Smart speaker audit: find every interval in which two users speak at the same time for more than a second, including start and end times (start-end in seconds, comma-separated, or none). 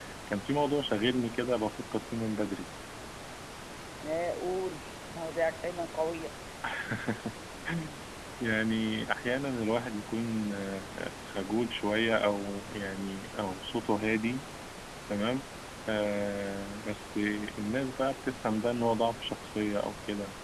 none